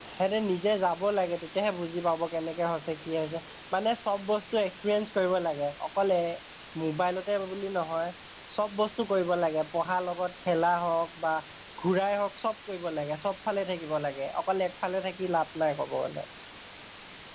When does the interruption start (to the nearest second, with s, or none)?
none